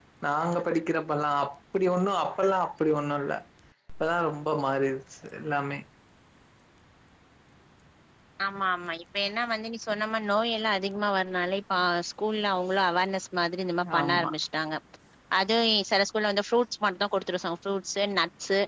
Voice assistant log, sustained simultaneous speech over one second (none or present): none